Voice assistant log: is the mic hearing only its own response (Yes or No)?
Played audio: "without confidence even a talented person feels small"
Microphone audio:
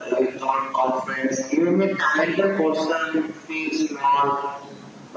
Yes